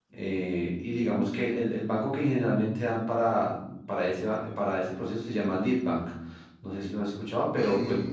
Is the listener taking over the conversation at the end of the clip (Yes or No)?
Yes